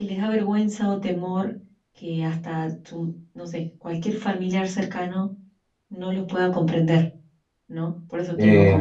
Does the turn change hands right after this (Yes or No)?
No